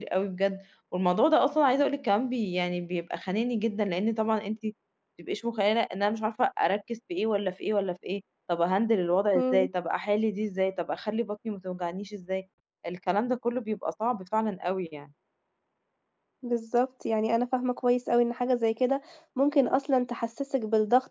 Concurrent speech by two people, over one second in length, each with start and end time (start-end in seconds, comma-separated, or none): none